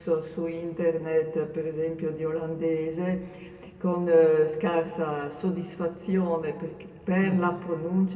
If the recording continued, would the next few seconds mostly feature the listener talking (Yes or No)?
No